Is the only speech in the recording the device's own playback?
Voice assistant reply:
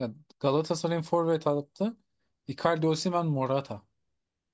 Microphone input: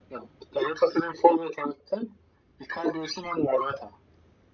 Yes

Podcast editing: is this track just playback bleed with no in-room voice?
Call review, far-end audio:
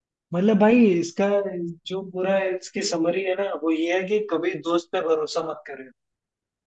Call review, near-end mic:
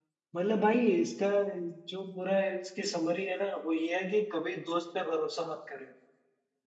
Yes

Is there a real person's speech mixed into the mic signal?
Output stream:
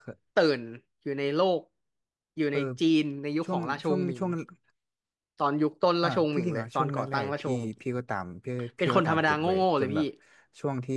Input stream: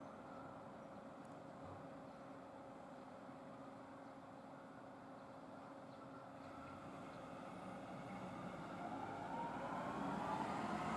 No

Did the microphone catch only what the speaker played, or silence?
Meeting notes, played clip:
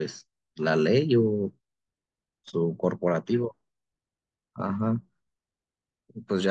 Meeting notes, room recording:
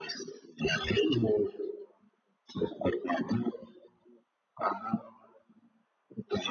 Yes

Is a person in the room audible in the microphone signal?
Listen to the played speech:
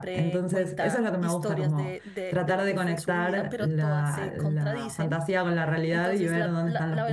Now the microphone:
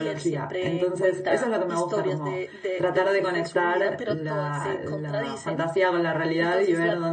No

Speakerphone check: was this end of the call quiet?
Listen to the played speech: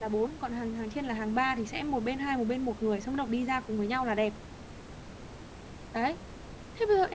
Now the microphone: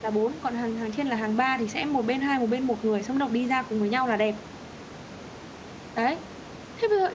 Yes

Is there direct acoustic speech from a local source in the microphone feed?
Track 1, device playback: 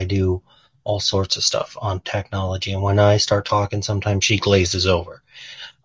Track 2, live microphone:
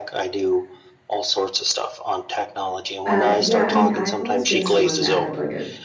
Yes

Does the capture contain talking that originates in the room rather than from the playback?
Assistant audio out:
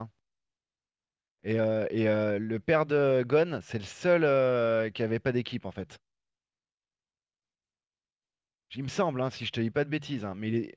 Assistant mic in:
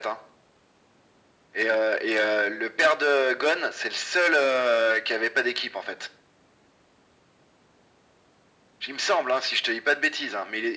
No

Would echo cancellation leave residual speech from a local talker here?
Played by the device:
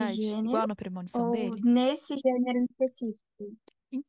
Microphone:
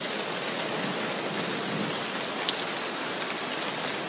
No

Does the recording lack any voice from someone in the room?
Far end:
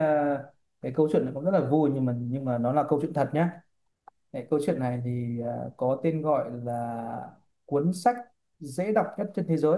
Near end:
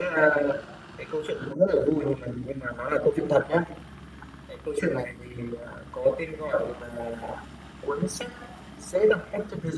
Yes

